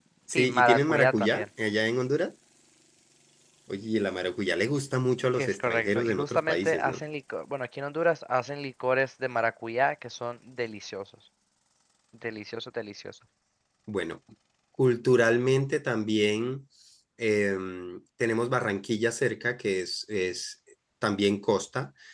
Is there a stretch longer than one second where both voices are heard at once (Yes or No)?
Yes